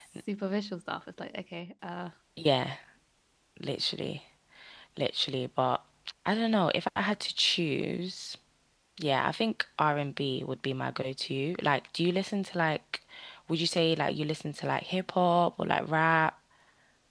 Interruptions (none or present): none